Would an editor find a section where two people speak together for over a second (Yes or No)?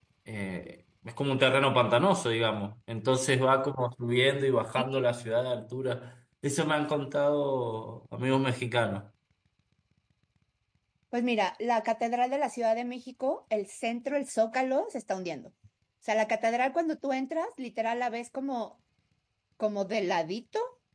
No